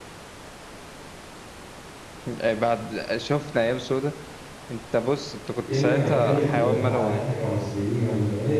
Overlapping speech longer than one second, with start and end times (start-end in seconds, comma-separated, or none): 5.7-7.2